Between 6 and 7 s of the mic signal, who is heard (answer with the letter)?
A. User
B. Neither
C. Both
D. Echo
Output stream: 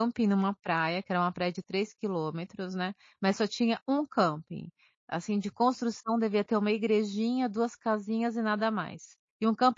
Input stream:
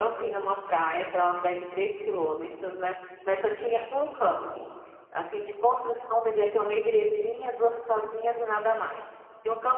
D